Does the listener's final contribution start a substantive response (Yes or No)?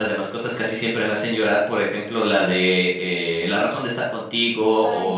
No